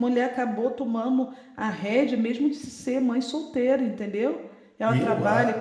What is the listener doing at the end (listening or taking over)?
listening